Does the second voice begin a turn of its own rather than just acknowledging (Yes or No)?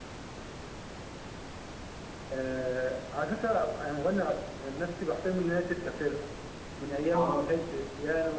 No